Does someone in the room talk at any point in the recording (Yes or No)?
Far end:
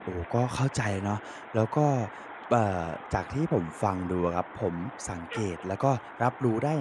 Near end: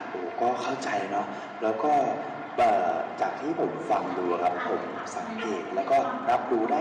Yes